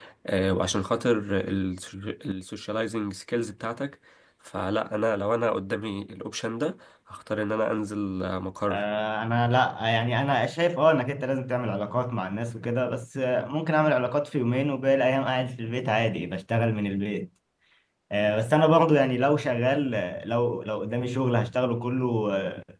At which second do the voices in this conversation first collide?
none

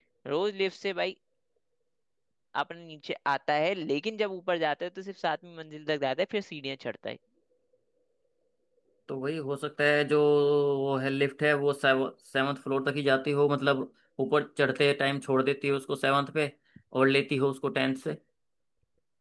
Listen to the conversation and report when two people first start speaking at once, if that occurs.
none

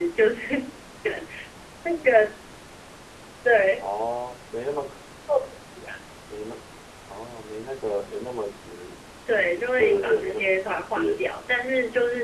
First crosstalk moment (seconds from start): 9.3 s

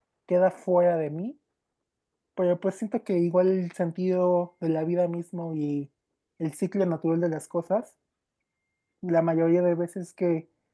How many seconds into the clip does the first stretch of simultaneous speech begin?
none

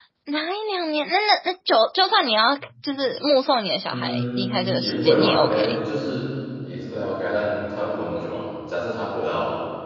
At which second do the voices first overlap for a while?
3.9 s

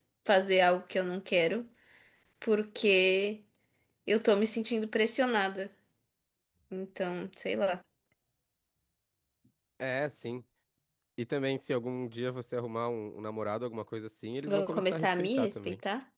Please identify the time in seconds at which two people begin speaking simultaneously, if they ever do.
14.5 s

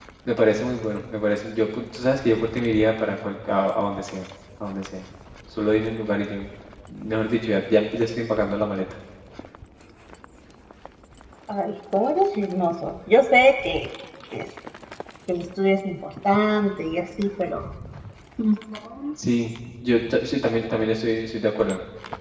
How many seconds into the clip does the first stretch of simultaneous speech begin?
none

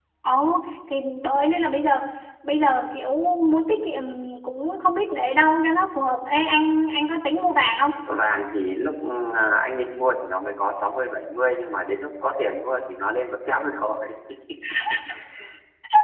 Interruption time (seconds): none

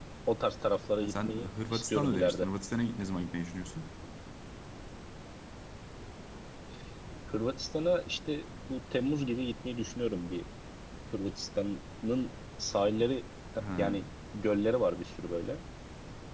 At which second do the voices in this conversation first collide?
1.0 s

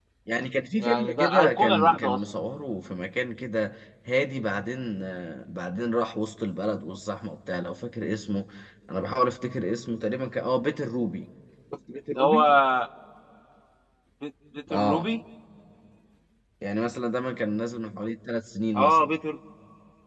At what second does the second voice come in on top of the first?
0.8 s

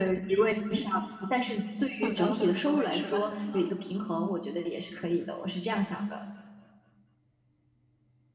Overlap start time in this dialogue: 2.0 s

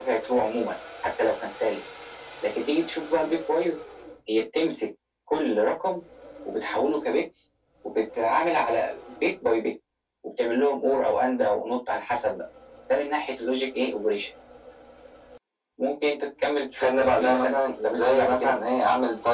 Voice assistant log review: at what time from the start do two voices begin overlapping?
16.8 s

